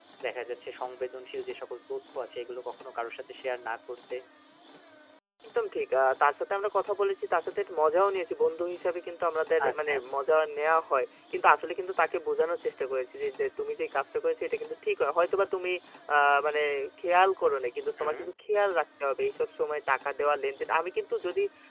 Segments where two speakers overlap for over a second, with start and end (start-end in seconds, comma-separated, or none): none